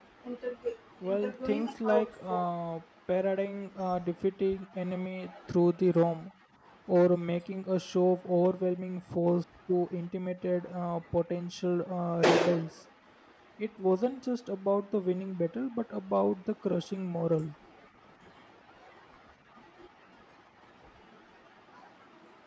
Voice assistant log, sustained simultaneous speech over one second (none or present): present